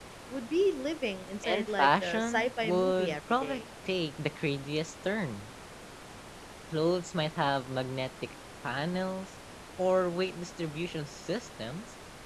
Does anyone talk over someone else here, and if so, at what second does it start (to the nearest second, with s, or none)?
1 s